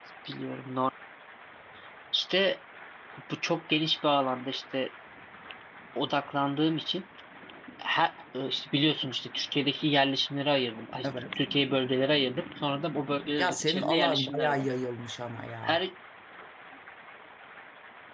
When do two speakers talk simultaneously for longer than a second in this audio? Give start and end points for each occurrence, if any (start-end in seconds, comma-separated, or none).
13.4-14.7